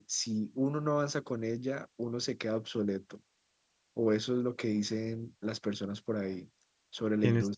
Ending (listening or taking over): taking over